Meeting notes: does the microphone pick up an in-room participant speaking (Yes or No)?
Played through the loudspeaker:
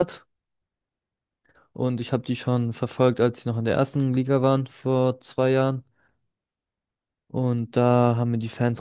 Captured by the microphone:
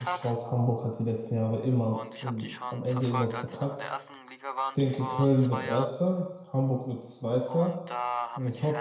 Yes